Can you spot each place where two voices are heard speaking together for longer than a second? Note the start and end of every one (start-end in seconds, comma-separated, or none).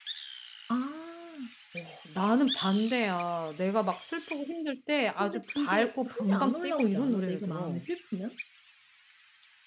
5.2-7.8